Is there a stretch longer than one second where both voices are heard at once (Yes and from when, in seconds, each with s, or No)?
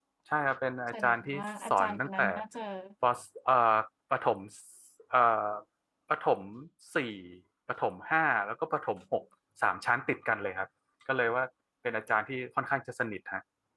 Yes, from 0.9 s